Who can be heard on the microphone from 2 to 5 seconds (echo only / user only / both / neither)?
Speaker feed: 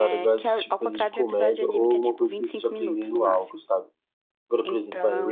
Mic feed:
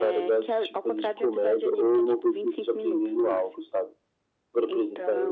echo only